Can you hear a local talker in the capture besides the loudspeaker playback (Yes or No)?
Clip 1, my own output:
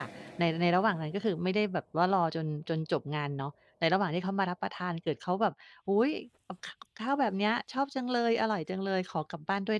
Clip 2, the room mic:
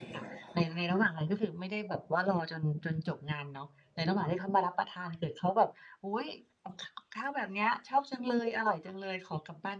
No